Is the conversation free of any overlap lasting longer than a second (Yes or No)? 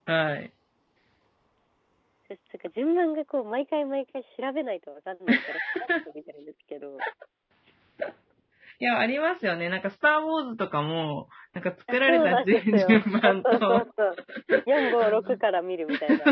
No